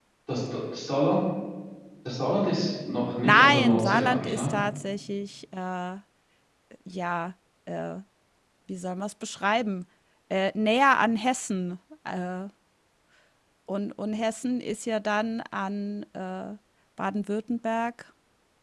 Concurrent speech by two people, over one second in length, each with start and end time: 3.2-4.5

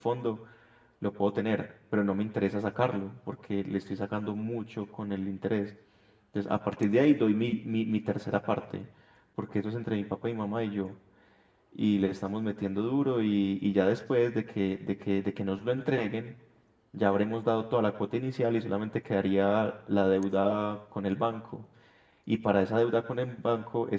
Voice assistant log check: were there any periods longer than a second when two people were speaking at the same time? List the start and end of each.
none

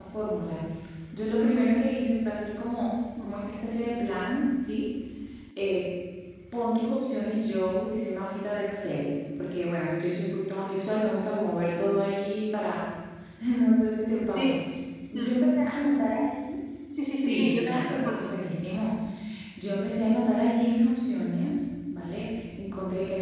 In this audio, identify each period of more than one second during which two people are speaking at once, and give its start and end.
17.2-18.4

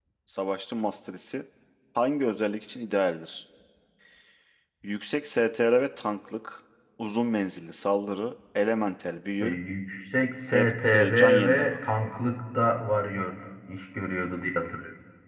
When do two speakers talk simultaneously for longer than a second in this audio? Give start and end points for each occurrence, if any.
10.5-11.8

